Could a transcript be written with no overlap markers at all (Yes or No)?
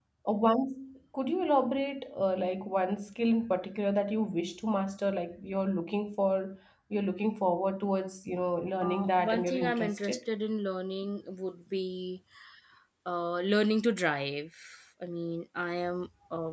No